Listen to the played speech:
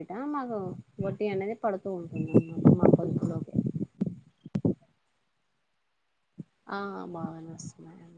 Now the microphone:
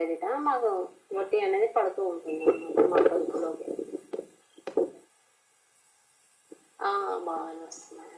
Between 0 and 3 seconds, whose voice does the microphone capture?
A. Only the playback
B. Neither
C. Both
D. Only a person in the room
A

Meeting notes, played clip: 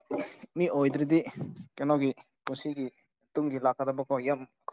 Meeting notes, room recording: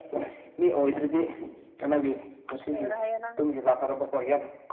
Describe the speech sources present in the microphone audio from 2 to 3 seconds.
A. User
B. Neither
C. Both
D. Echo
C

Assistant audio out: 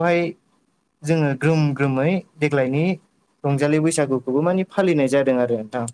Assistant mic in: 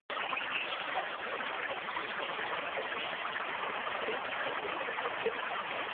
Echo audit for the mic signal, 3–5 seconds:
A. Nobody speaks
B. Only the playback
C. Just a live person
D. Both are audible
A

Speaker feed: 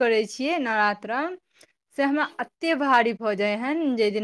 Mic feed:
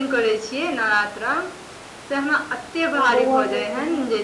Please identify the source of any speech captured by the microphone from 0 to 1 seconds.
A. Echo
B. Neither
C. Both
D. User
A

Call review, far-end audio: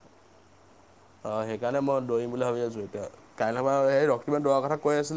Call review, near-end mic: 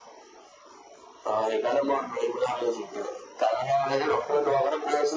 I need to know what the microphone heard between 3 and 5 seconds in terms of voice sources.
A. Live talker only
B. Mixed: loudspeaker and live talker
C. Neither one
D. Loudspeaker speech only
D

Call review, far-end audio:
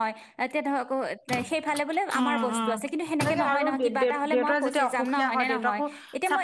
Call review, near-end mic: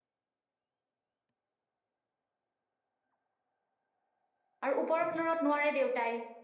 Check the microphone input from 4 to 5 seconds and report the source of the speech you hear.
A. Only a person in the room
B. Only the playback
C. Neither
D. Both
A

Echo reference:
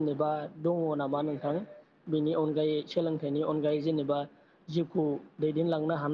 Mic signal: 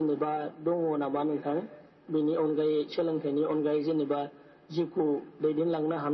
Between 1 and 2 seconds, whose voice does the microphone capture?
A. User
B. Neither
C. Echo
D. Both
C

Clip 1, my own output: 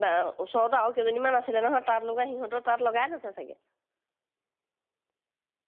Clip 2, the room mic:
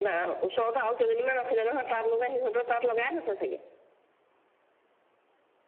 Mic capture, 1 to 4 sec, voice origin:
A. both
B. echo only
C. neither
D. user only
B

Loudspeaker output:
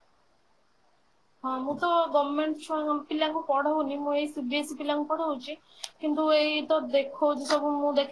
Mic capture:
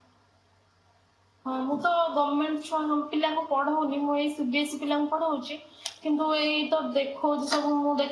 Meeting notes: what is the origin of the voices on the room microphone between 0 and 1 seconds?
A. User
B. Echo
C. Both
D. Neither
D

